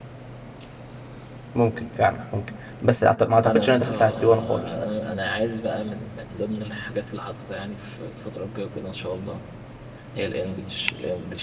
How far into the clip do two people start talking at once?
3 s

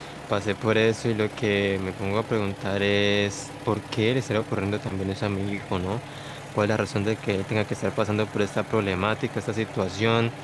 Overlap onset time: none

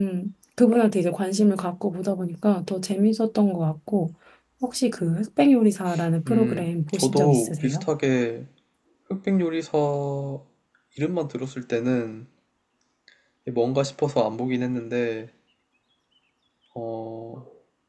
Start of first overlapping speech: 6 s

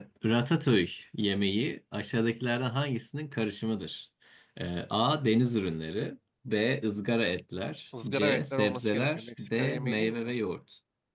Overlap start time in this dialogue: 8 s

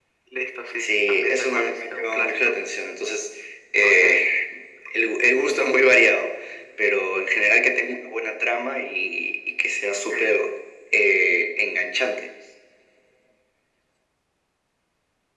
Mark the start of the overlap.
1 s

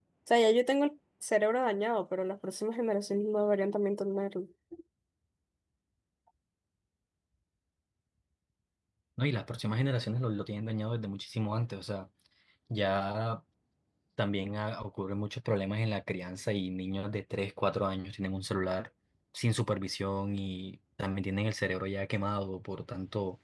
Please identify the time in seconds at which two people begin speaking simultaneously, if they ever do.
none

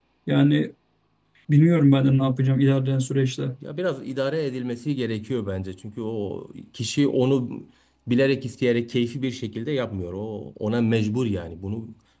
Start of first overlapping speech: none

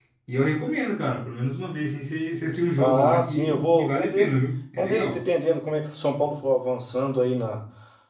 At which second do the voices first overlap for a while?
3 s

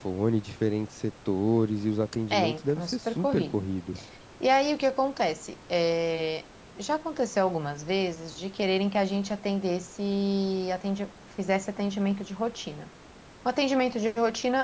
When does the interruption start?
2 s

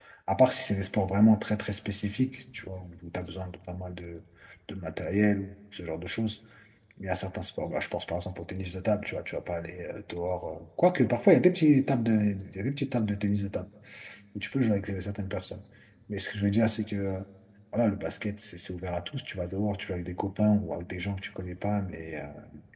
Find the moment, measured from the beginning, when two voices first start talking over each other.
none

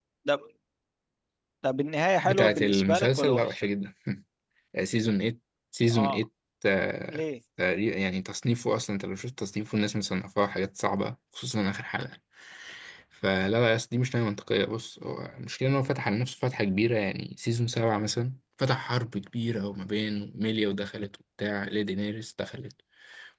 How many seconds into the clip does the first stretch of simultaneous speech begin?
2 s

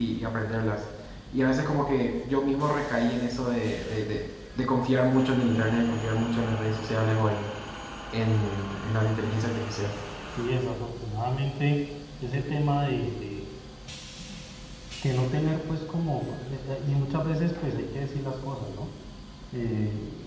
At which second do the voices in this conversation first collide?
none

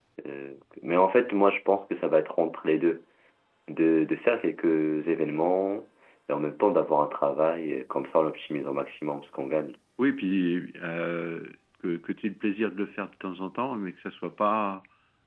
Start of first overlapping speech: none

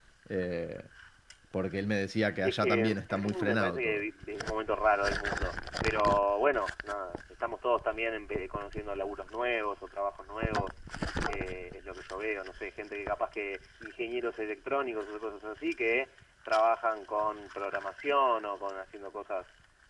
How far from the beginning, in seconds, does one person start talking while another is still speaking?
2 s

